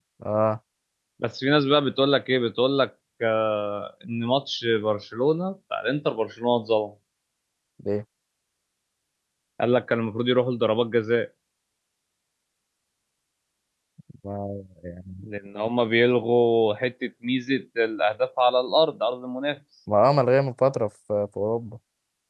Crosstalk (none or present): none